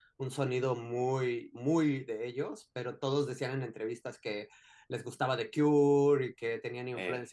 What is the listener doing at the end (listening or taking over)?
listening